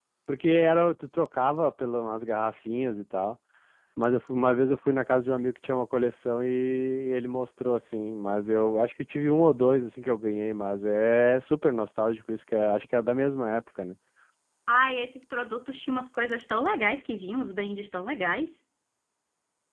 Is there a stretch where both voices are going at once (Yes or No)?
No